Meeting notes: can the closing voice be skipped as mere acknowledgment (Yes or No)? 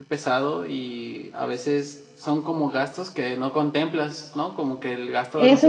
No